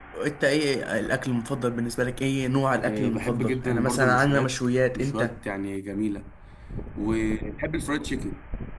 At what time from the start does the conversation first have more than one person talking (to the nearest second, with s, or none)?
3 s